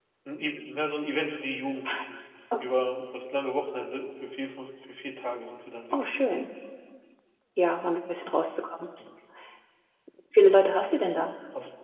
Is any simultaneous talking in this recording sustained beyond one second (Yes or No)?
No